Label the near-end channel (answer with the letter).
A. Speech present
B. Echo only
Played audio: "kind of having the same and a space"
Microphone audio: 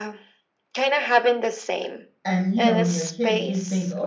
A